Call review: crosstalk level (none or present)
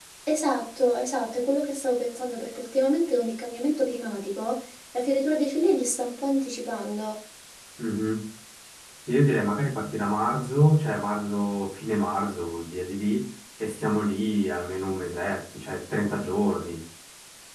none